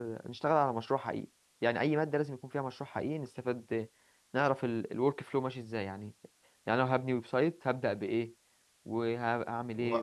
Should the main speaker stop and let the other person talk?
Yes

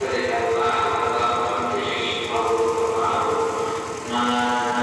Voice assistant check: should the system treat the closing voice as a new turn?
No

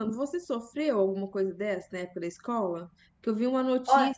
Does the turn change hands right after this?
No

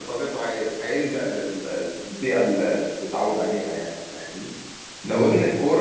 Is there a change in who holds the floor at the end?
No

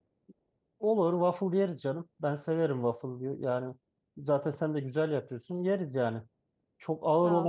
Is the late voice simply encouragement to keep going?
Yes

